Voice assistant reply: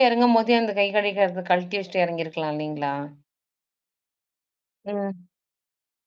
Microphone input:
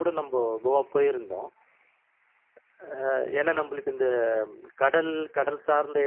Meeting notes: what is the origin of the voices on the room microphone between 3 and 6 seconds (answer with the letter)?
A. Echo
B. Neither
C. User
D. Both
C